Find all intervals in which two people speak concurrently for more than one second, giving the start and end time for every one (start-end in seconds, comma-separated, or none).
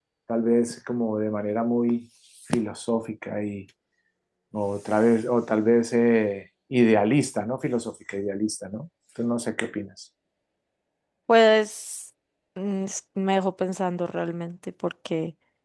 none